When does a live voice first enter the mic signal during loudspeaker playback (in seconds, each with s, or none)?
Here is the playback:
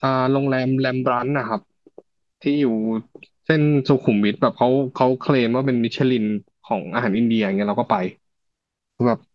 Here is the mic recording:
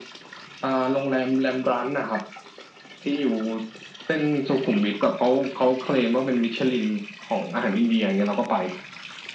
none